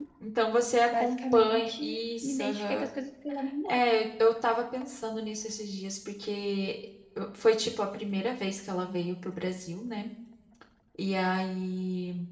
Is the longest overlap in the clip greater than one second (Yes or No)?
Yes